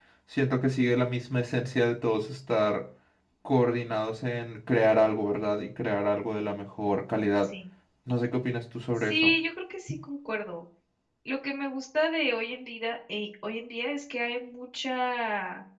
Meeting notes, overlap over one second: none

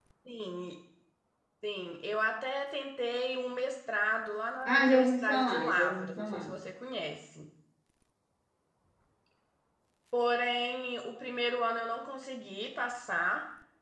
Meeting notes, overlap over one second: present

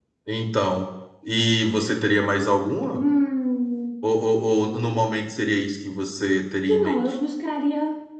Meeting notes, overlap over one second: none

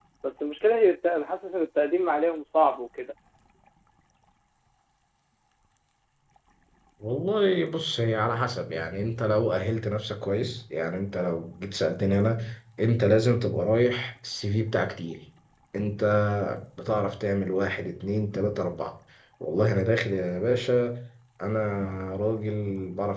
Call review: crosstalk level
none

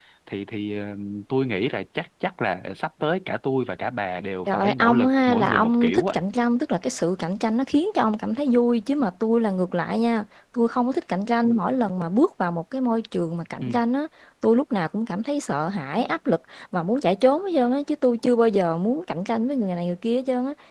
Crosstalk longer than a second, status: present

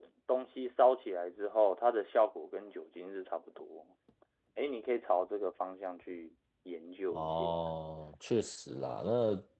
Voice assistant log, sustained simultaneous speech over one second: none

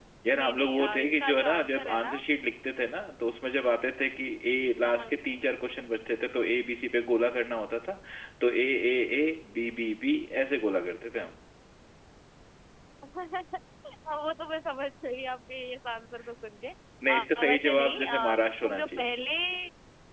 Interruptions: present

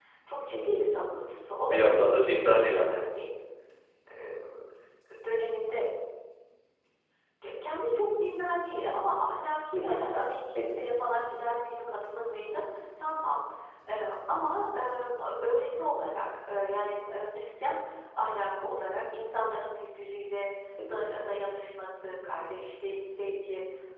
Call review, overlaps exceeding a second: present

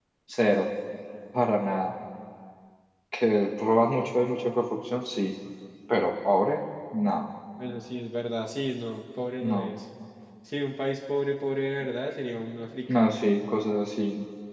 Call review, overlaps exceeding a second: none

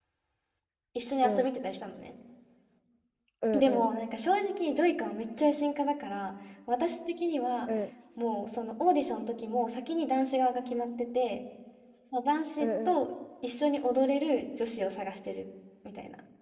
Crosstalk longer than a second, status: none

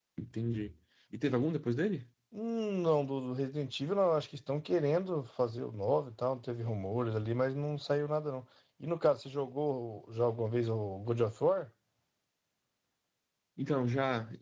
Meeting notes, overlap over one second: none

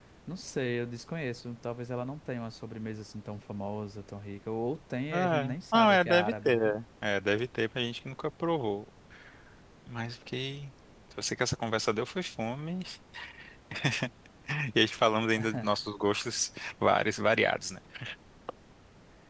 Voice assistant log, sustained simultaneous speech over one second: present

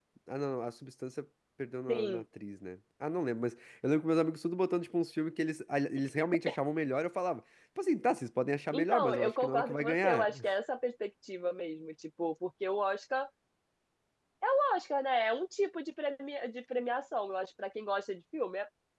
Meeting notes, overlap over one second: present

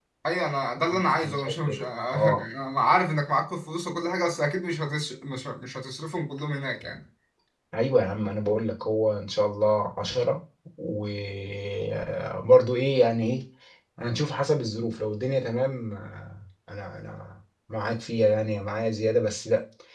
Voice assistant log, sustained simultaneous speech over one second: present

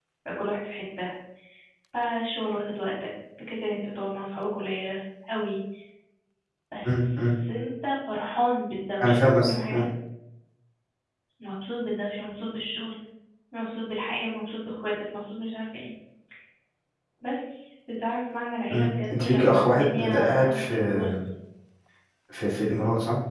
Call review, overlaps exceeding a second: present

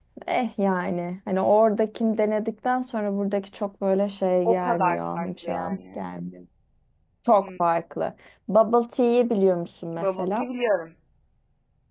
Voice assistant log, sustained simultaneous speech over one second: present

